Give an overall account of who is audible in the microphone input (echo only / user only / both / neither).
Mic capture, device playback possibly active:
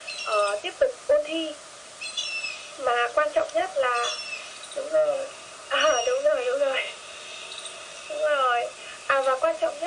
echo only